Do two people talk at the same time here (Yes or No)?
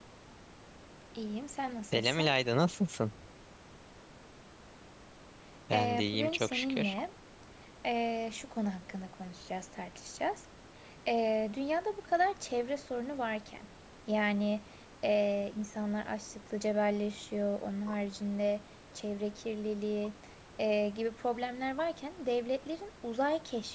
Yes